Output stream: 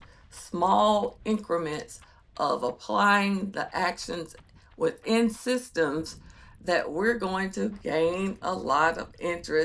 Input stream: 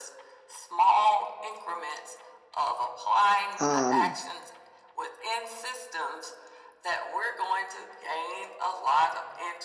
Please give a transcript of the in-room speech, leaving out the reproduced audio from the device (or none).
um,